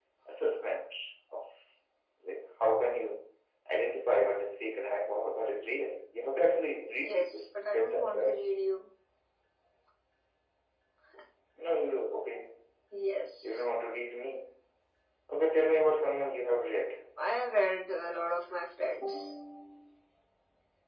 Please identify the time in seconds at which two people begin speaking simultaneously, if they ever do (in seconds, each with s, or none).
7.0 s